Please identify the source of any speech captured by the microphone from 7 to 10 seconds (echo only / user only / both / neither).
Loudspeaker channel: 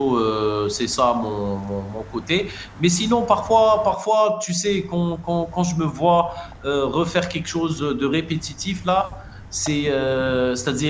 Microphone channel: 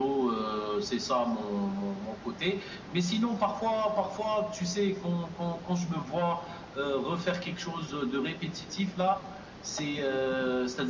echo only